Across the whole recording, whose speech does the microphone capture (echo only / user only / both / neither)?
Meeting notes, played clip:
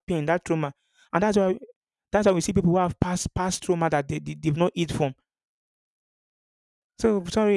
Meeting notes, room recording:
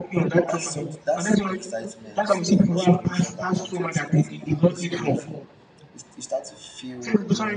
both